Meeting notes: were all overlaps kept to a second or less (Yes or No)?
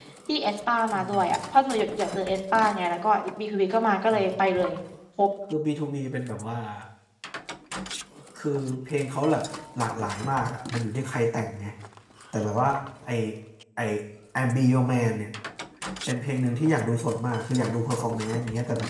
Yes